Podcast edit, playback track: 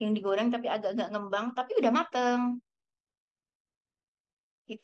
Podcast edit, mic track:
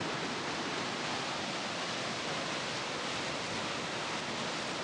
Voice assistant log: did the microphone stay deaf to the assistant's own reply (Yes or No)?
Yes